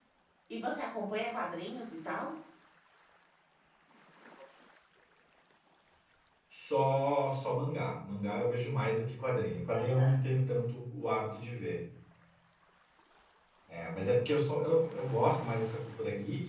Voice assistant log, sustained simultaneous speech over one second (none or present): none